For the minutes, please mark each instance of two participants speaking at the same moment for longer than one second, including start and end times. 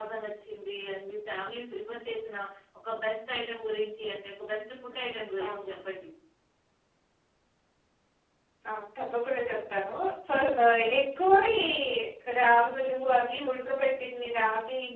none

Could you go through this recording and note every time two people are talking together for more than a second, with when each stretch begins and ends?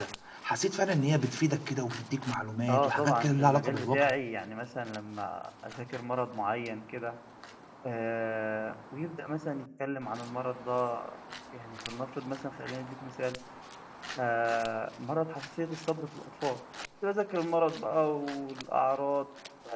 2.7-4.1

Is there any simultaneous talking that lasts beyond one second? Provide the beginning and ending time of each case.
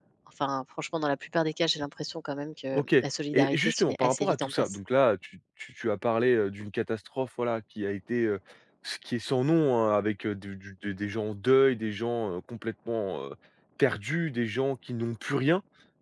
3.3-4.8

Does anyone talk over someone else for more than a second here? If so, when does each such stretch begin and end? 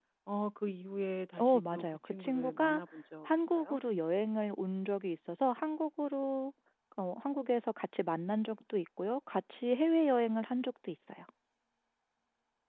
1.4-2.8

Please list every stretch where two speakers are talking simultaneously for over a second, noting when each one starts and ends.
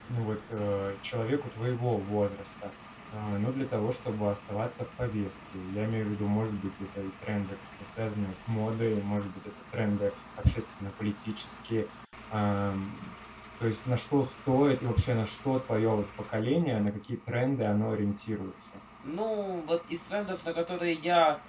none

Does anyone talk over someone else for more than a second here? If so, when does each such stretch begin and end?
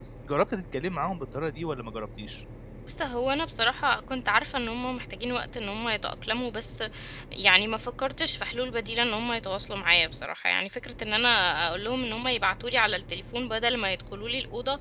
none

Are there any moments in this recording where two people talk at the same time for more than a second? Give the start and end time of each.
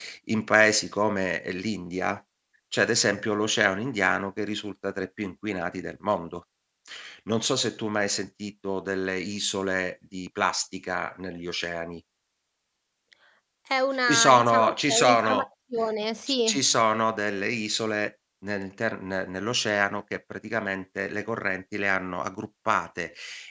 14.1-15.5

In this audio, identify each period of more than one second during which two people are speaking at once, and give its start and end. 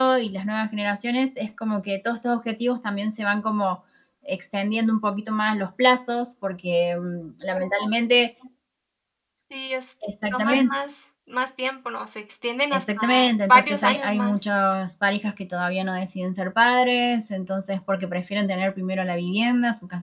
12.7-14.3

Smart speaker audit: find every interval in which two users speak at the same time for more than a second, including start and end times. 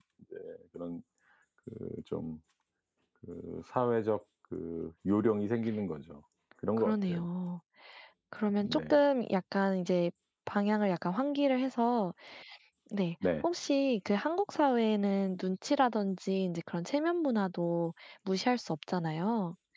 none

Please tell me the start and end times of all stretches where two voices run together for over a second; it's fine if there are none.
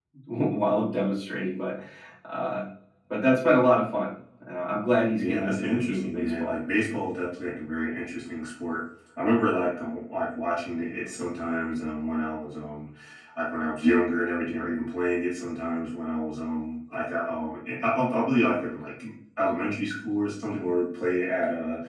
5.2-6.6

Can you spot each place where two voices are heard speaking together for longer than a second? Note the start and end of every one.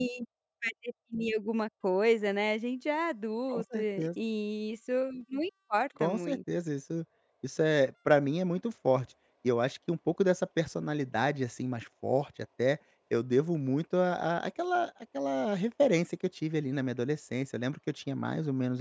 none

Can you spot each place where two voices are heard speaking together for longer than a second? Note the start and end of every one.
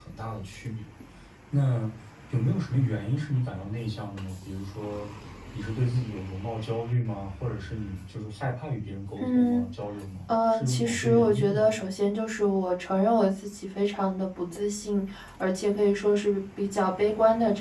10.3-11.8

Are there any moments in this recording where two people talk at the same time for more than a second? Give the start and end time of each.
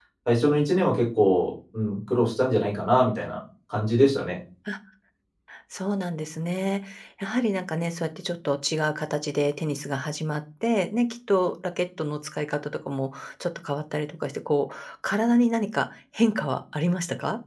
none

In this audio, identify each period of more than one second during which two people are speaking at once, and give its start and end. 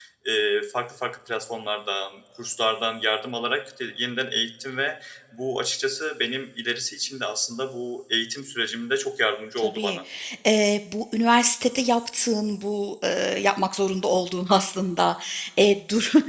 none

